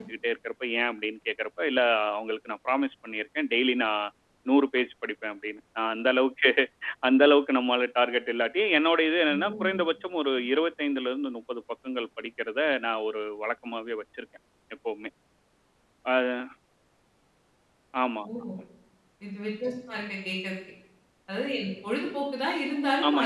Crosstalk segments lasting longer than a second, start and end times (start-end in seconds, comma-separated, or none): none